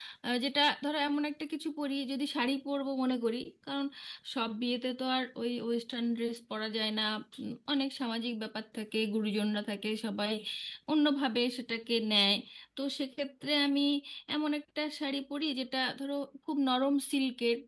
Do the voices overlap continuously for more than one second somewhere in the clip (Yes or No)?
No